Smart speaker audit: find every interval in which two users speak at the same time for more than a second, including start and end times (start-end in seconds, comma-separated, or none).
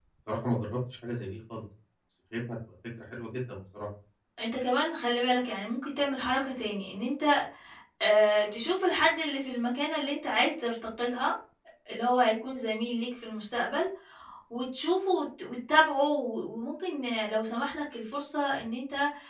none